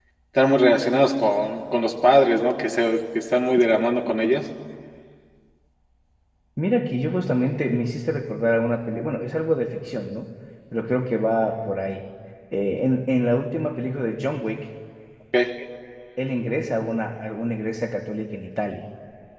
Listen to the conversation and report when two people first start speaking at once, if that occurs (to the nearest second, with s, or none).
none